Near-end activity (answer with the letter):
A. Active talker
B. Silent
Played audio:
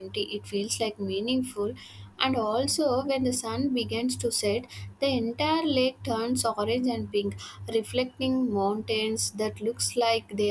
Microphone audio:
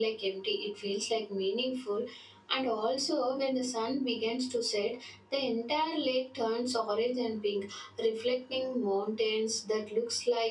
B